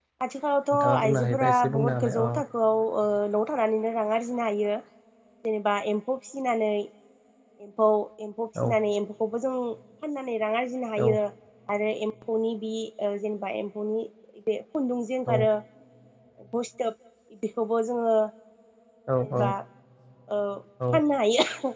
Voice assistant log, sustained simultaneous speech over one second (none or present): present